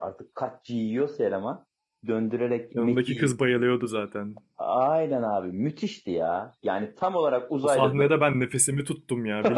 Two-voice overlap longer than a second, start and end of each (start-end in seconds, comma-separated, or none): none